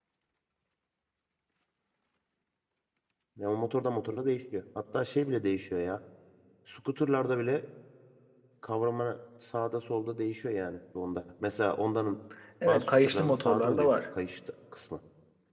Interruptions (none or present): present